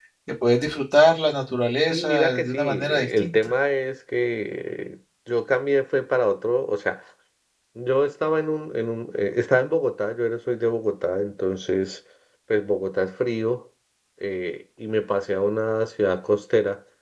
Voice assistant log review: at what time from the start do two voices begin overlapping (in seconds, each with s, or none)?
1.9 s